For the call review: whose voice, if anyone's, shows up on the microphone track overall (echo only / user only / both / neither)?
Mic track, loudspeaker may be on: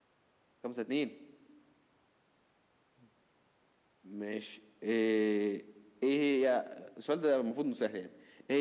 echo only